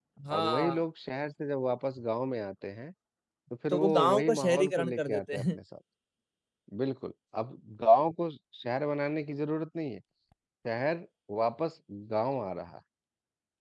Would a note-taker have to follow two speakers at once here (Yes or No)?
Yes